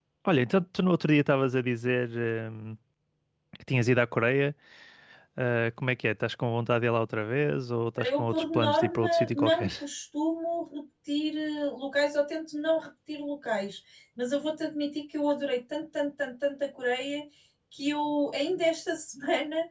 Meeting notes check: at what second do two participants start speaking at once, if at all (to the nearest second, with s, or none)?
8 s